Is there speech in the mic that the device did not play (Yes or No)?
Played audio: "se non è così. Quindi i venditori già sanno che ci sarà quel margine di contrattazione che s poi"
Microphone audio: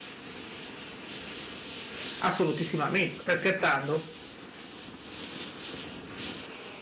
Yes